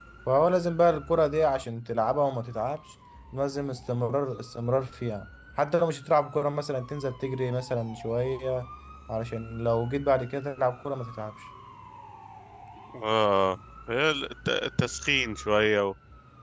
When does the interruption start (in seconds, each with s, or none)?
none